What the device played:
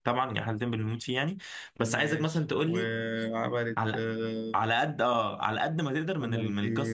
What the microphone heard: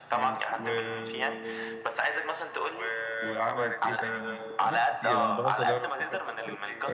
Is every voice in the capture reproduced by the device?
No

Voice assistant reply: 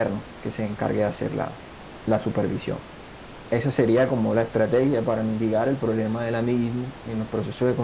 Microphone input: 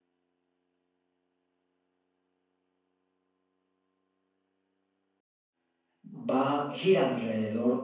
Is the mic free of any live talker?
No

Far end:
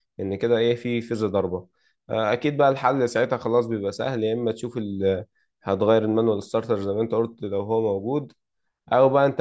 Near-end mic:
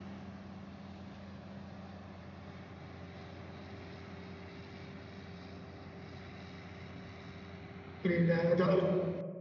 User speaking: Yes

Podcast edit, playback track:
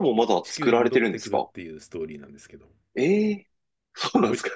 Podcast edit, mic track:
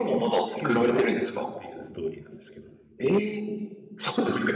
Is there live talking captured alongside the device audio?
No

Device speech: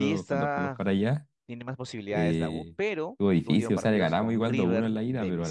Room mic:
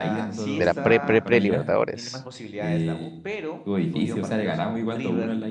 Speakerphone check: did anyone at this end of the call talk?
Yes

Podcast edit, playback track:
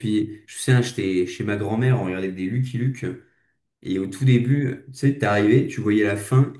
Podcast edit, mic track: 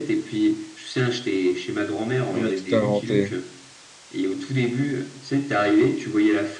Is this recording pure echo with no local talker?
No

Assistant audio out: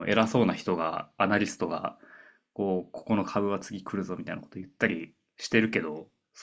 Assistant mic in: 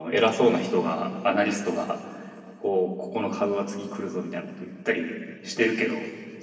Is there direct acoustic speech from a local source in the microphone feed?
No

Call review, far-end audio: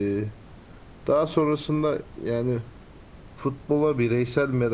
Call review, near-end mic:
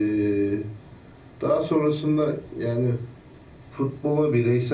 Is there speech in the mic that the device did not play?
No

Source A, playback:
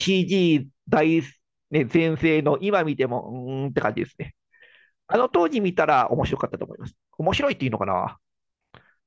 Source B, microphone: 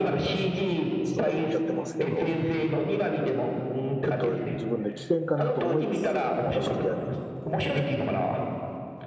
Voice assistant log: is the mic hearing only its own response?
No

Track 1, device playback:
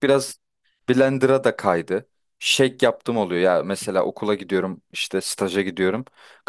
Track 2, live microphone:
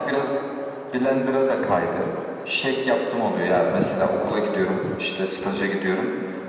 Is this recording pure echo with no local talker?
Yes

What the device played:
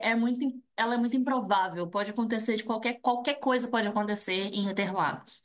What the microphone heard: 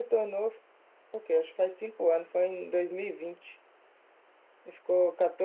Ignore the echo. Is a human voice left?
Yes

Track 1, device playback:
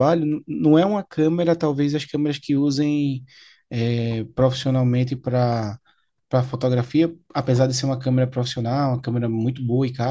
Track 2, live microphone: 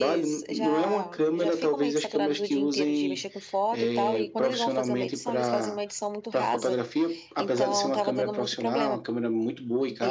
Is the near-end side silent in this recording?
No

